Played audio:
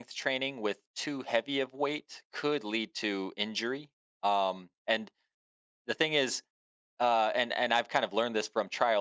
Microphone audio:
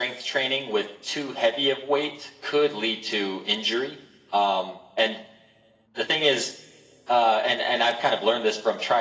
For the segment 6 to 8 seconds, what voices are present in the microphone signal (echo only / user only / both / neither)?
echo only